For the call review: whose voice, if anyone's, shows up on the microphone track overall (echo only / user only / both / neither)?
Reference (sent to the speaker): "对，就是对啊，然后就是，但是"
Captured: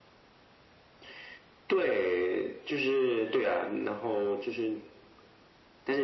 echo only